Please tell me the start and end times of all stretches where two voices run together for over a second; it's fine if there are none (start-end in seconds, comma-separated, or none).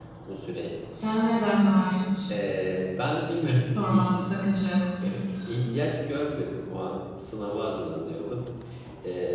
none